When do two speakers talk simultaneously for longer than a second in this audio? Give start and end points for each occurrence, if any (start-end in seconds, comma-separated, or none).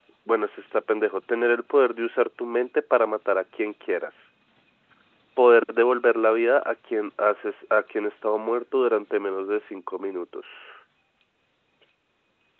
none